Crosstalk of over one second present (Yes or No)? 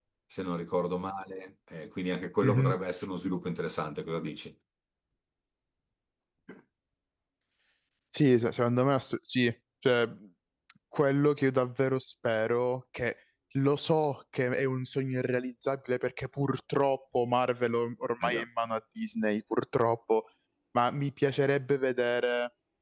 No